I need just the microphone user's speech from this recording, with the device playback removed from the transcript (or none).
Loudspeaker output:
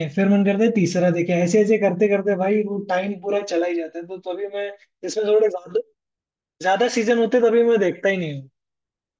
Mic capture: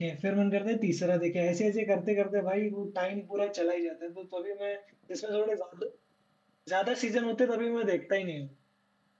none